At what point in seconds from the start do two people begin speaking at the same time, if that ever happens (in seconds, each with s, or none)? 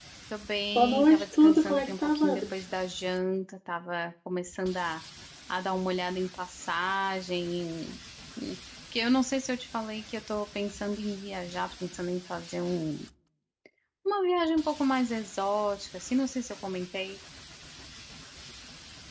0.7 s